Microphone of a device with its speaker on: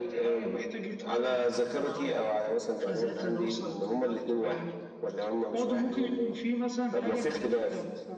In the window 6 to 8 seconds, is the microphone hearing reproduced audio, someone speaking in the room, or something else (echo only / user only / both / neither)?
echo only